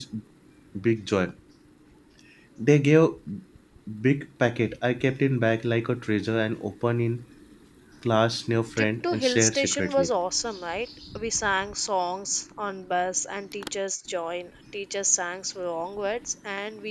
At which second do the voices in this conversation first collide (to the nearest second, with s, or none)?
9 s